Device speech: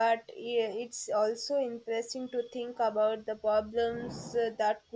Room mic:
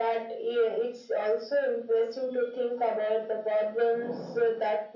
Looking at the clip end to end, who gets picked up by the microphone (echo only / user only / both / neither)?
echo only